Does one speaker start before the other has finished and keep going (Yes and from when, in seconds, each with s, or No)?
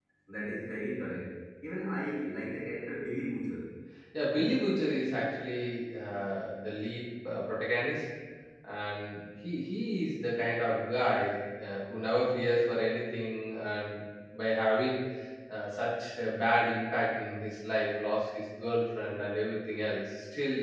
No